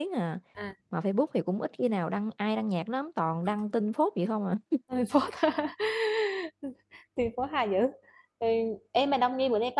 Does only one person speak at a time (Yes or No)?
Yes